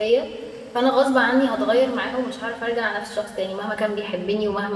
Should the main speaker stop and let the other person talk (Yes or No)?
No